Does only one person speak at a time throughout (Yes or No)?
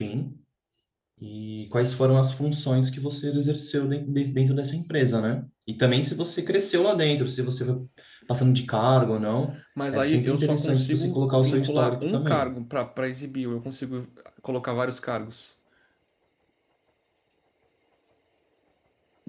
No